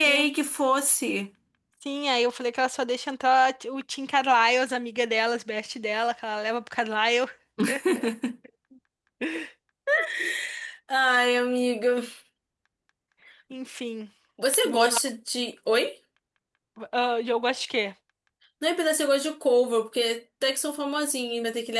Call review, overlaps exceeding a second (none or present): none